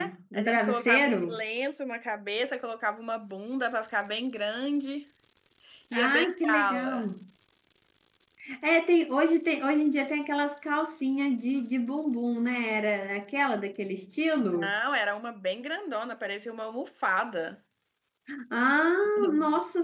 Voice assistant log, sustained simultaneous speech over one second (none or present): present